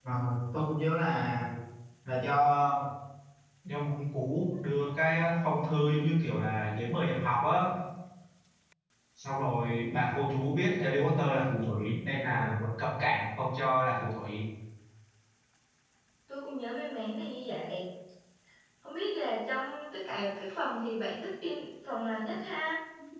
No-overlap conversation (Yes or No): Yes